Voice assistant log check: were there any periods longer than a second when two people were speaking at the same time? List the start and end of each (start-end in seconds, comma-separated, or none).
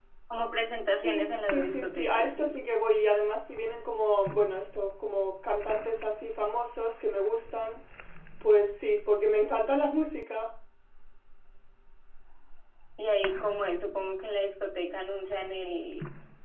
1.0-2.6